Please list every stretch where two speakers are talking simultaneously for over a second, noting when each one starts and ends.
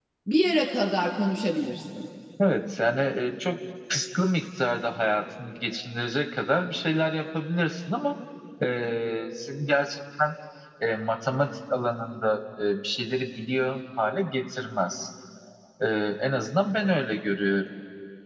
none

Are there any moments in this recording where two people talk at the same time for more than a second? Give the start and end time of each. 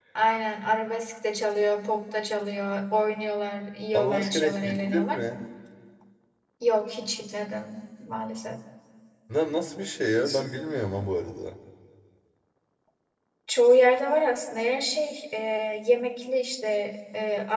3.9-5.2

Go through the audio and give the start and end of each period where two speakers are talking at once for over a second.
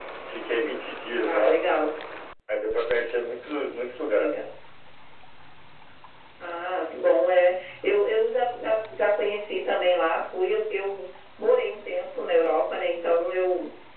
none

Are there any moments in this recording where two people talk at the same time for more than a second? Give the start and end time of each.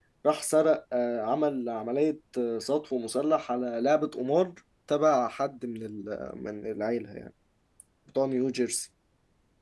none

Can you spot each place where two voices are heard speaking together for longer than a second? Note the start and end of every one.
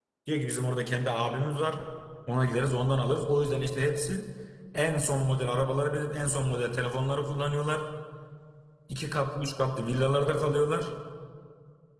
none

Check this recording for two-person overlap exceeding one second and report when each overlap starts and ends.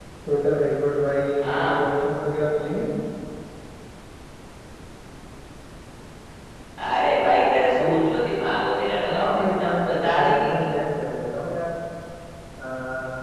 9.1-10.7

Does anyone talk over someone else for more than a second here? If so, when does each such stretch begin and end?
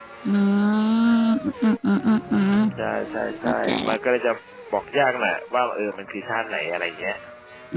none

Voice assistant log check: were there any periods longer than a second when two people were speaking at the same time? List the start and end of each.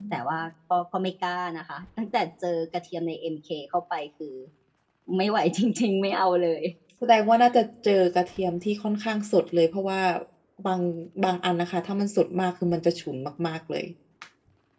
none

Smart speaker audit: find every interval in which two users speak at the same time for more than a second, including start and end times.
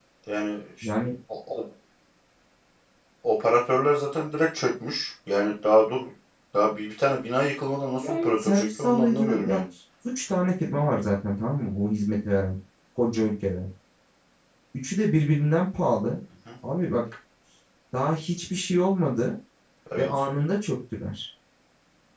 8.0-9.6

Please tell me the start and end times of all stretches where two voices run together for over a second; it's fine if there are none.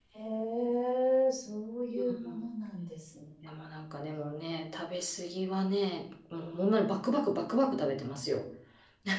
none

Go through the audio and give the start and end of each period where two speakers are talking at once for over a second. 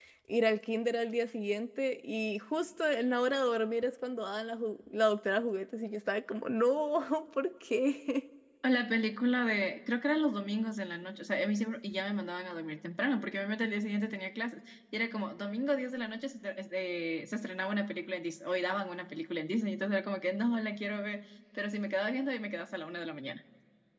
none

